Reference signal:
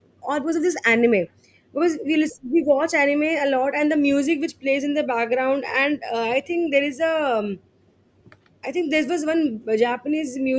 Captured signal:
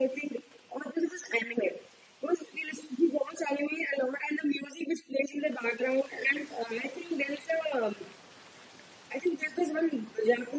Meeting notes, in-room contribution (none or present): none